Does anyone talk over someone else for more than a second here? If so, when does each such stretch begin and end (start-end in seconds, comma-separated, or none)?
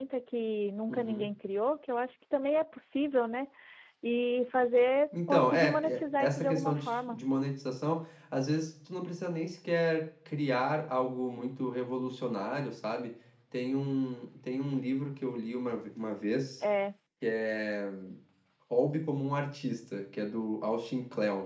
5.1-7.2